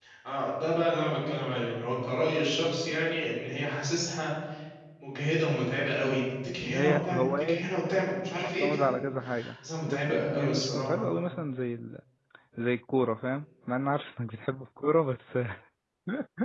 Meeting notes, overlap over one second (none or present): present